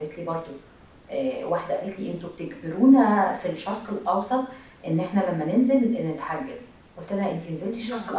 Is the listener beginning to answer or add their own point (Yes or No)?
No